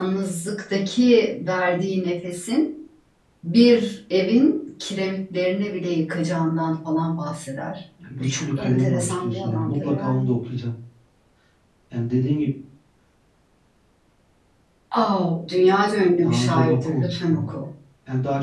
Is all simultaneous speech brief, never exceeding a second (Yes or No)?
No